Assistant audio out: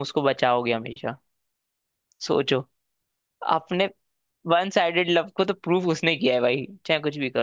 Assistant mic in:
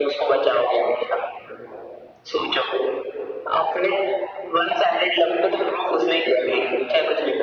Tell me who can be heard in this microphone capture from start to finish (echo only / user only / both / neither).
echo only